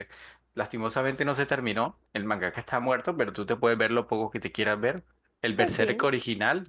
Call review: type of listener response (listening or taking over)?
listening